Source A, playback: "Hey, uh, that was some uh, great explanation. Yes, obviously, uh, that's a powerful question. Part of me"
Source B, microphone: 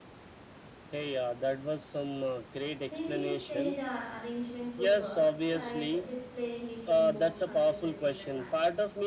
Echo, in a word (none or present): present